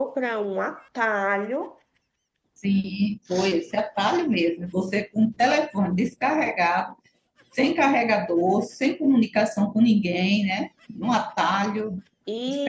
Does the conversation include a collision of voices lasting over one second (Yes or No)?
No